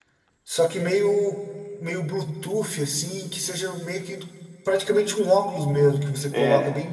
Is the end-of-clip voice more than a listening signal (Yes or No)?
Yes